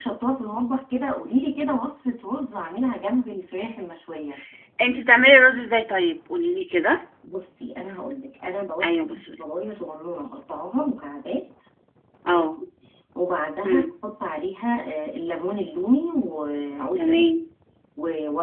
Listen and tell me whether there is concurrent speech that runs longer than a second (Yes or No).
No